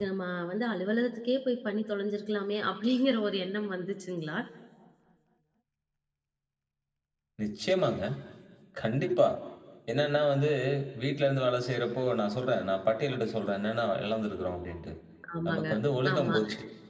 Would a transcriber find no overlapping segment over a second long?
Yes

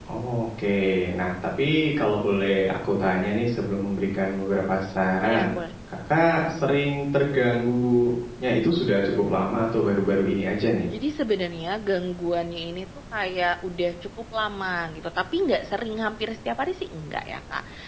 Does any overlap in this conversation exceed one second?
No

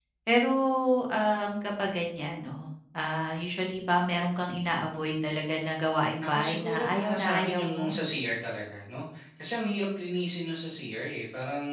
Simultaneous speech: Yes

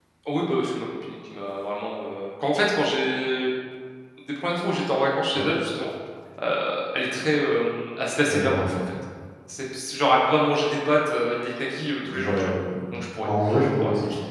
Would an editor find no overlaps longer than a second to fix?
Yes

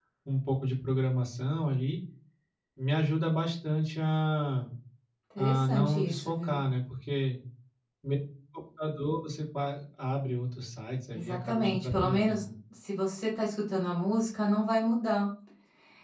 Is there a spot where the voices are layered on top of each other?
Yes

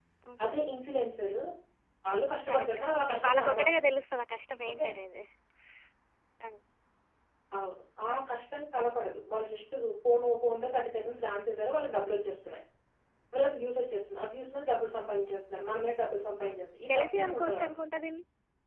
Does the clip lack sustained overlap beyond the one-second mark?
No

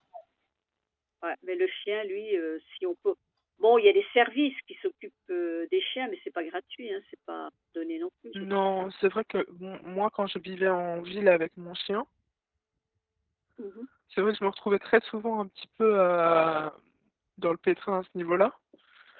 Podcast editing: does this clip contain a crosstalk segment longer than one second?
No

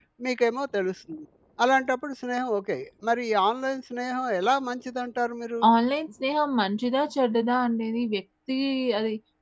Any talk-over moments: No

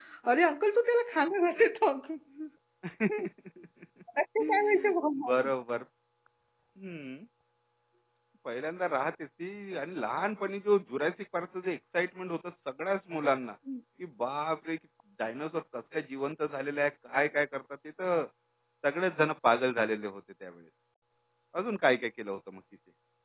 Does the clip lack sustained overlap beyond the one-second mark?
Yes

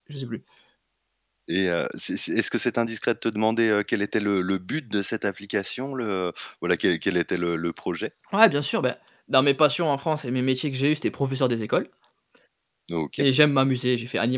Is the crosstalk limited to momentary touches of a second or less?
Yes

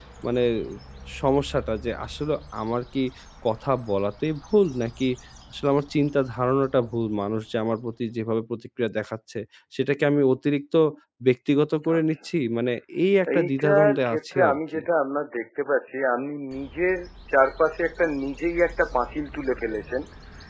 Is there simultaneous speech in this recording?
Yes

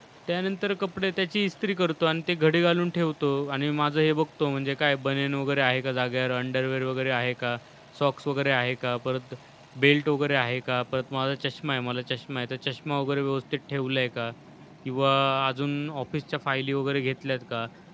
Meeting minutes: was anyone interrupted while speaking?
No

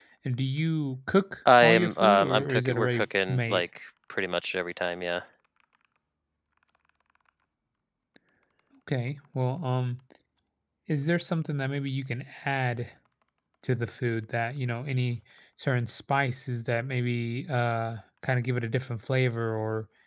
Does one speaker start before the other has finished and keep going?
Yes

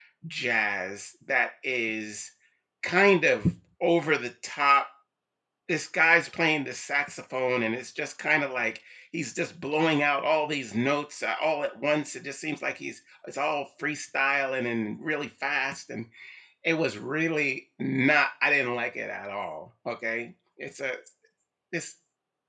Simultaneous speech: No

